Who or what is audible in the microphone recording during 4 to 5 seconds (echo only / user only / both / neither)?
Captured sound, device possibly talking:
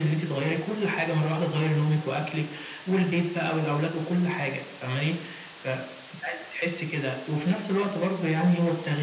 echo only